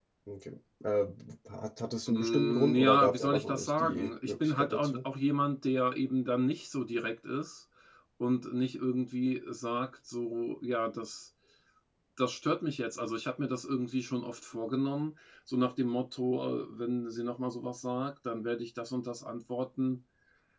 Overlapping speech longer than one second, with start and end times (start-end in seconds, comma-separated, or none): 2.1-5.0